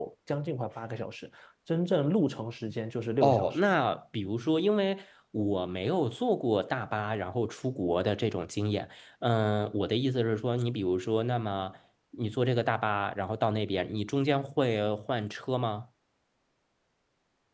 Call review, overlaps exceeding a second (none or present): none